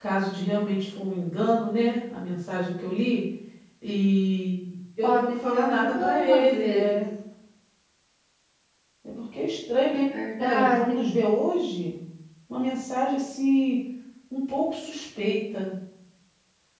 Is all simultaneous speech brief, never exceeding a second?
No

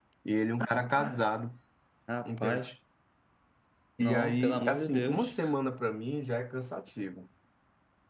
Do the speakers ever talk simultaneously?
Yes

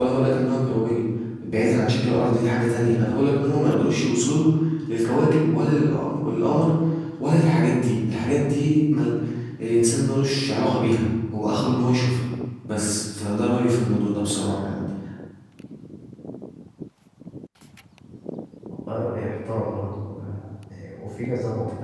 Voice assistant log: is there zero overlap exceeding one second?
Yes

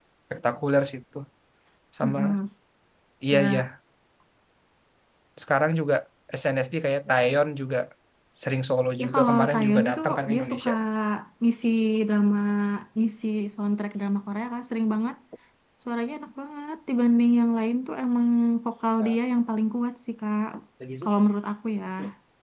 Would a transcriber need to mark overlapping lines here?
Yes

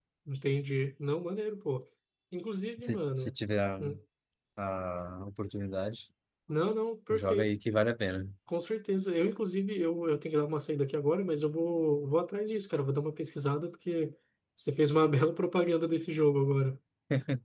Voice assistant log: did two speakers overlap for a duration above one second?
No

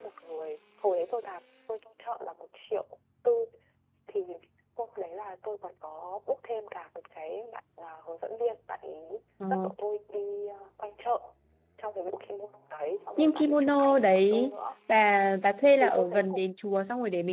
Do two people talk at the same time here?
Yes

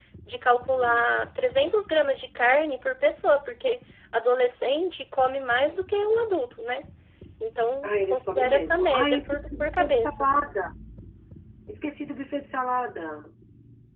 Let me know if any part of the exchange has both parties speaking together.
Yes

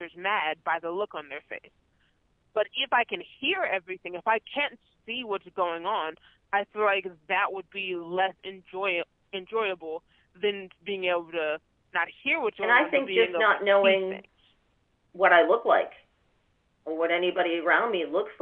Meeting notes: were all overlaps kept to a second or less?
No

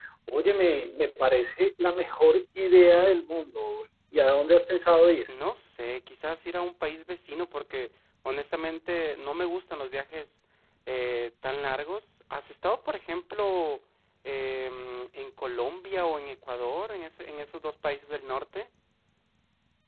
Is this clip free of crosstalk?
Yes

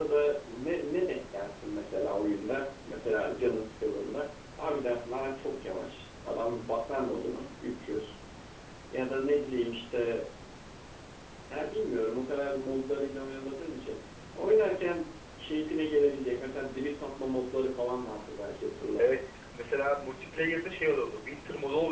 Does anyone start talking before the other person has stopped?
No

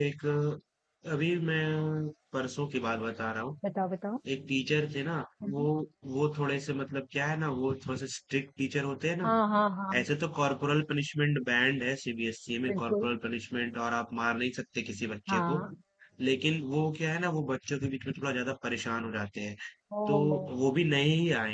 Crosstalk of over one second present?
No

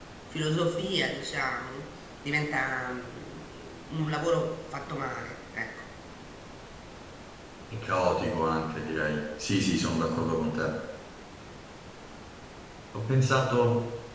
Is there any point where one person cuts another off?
No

